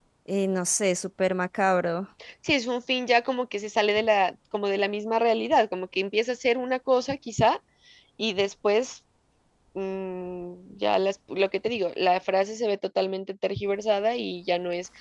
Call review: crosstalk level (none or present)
none